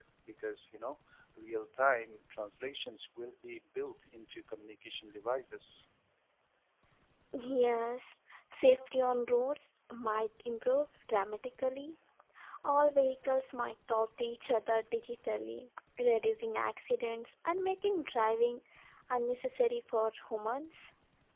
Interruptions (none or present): none